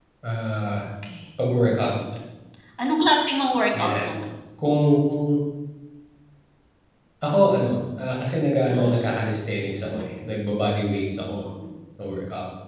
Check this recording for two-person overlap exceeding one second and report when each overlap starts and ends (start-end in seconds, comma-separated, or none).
none